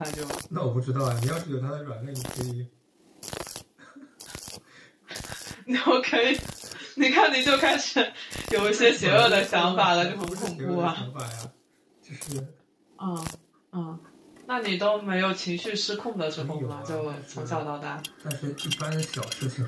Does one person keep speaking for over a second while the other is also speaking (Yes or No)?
Yes